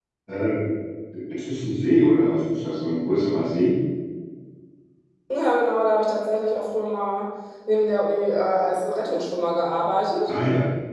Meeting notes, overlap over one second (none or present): none